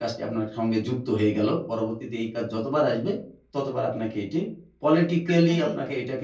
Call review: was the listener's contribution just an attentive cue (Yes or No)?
Yes